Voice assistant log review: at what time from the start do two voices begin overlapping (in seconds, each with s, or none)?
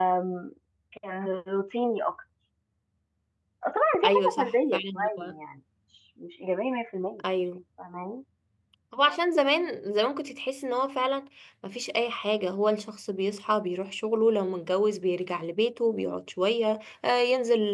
4.0 s